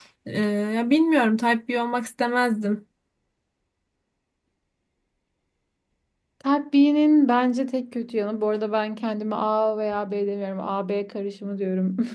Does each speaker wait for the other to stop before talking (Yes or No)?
Yes